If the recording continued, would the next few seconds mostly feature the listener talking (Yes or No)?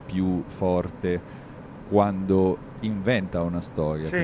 No